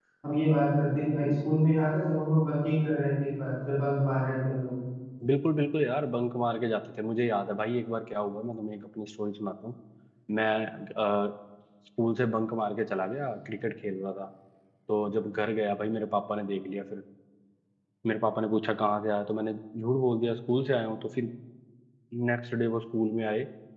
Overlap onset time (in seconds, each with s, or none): none